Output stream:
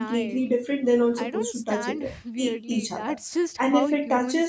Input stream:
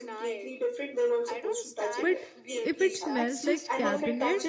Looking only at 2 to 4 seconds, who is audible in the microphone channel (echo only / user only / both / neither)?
both